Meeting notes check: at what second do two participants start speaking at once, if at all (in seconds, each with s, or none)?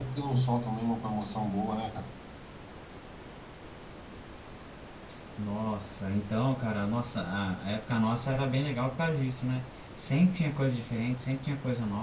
none